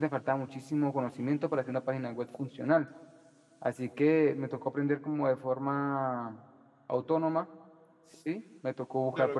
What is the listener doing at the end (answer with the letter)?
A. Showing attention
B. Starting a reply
B